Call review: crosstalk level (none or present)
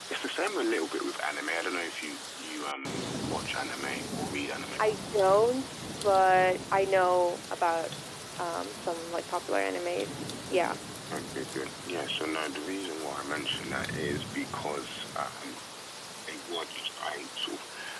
none